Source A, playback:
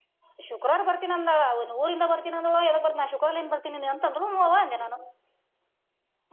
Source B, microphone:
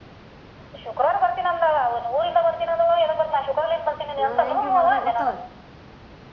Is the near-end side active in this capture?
Yes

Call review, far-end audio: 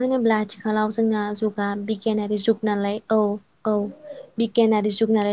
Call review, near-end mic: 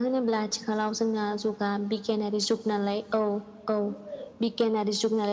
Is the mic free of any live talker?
Yes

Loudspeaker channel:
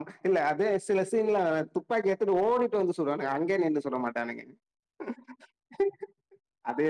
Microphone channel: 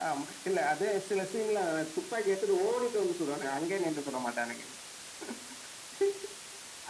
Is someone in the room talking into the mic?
No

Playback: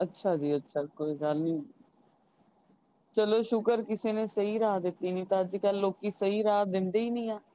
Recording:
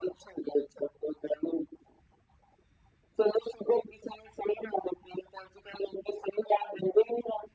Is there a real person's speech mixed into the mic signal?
No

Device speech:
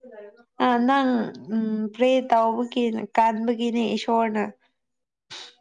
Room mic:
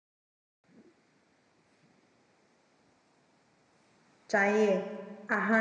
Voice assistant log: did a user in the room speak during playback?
Yes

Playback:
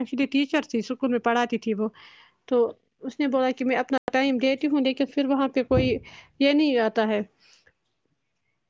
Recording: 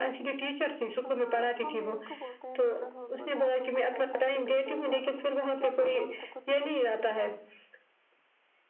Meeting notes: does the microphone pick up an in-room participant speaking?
Yes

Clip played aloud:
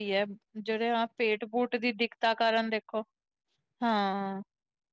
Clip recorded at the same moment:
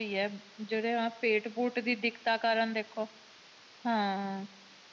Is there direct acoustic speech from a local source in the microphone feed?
No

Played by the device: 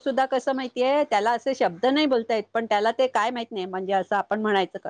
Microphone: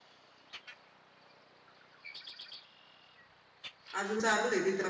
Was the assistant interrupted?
Yes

